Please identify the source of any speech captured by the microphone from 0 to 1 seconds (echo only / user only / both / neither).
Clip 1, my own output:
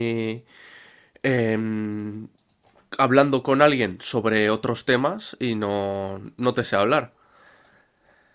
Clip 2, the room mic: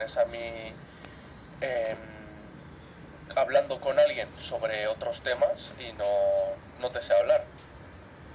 echo only